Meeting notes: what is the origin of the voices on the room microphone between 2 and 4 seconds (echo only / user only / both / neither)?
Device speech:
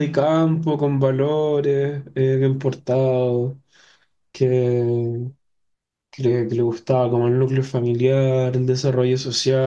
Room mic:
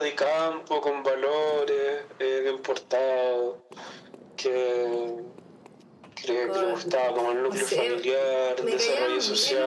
echo only